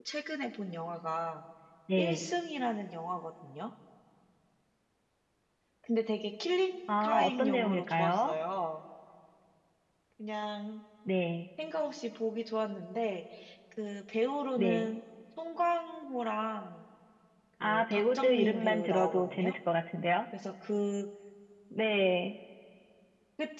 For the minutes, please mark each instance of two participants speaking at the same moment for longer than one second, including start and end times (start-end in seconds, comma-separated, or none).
7.0-8.3, 17.6-19.6